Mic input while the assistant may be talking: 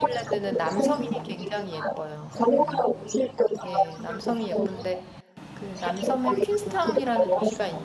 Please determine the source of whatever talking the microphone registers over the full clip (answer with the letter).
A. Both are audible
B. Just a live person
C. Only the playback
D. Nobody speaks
A